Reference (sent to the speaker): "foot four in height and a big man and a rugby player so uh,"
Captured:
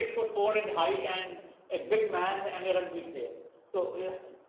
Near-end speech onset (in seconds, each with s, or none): none